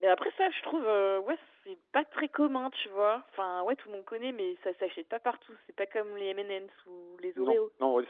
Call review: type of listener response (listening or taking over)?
taking over